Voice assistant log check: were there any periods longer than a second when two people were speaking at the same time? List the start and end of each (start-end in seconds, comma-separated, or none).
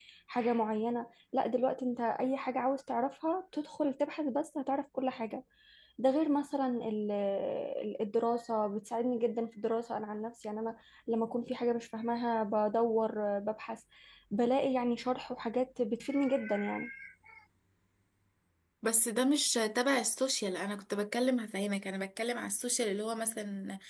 none